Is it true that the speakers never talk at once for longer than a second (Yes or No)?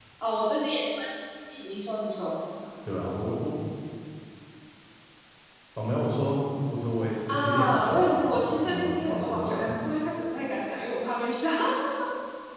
No